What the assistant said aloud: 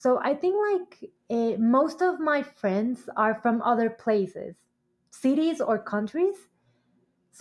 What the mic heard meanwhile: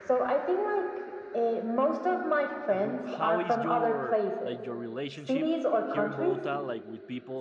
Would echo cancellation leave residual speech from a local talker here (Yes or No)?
Yes